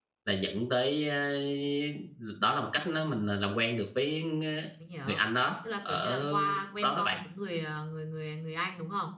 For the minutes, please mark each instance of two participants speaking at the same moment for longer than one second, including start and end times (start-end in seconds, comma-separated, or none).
5.9-7.2